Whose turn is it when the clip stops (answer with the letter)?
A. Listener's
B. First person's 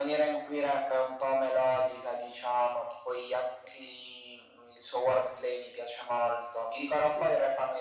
B